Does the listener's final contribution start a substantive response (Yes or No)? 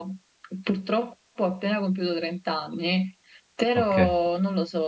No